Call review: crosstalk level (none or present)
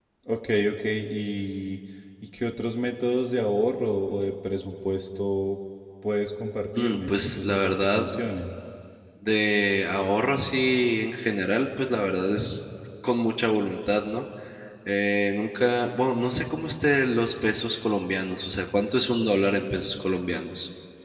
present